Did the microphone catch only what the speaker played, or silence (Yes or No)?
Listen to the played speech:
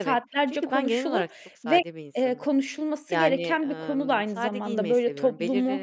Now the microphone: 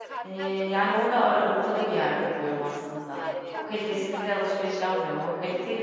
No